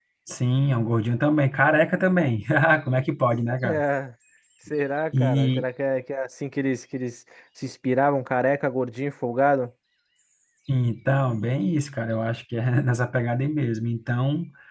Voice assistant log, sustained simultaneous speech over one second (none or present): none